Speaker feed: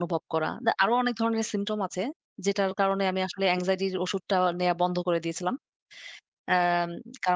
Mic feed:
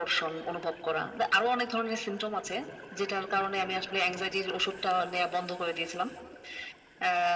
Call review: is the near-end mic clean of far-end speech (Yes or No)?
No